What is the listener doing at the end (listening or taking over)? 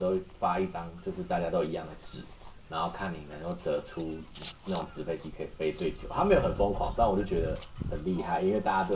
listening